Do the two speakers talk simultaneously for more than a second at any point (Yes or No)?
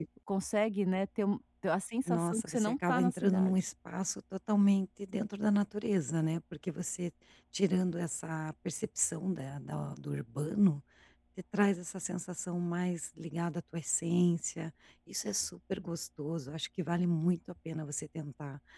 Yes